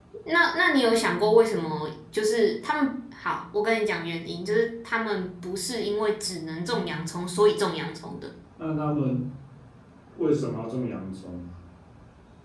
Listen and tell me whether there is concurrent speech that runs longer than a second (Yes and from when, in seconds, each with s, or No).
No